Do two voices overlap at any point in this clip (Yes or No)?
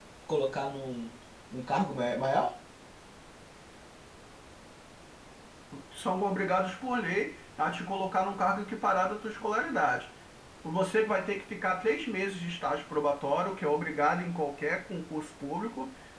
No